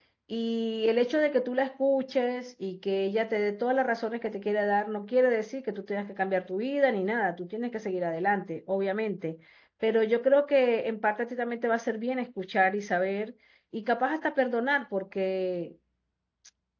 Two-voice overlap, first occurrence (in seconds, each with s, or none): none